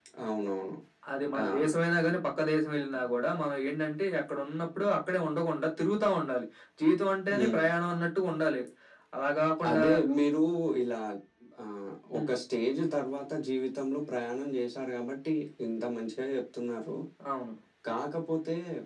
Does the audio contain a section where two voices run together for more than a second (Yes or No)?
No